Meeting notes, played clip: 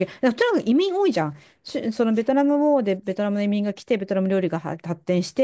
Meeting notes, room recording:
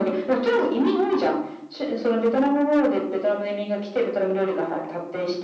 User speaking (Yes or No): No